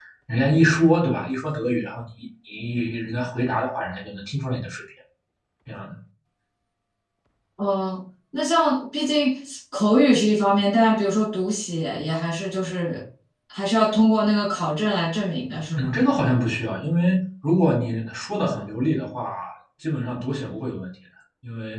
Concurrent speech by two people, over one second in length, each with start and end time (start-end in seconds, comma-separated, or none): none